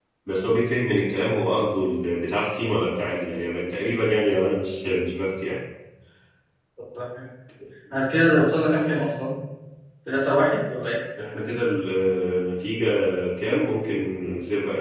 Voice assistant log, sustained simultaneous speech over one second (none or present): none